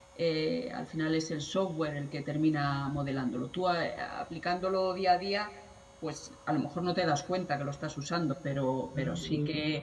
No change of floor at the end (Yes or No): Yes